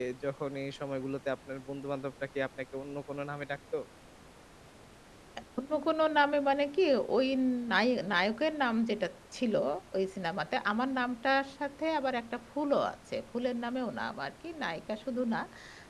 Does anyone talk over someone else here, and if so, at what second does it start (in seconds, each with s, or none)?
none